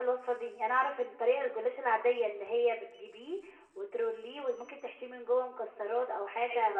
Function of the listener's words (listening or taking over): taking over